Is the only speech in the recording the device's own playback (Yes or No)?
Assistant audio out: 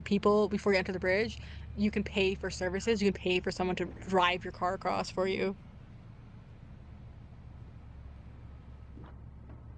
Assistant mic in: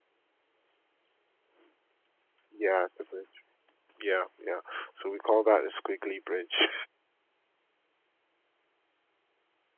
No